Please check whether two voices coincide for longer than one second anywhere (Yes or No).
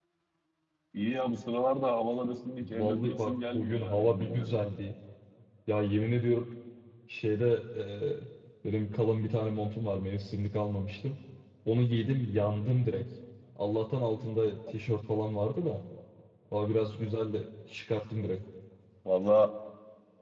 Yes